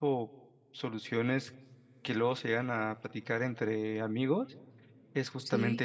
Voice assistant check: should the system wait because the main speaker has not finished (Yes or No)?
Yes